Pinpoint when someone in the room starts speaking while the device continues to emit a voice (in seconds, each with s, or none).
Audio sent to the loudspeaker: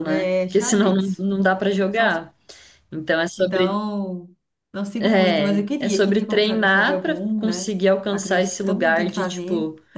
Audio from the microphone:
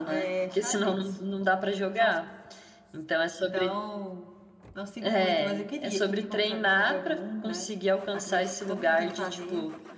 none